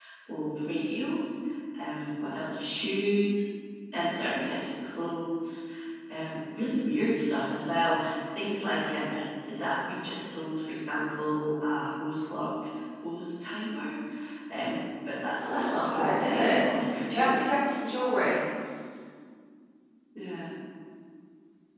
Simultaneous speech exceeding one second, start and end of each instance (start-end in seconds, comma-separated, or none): 15.4-16.6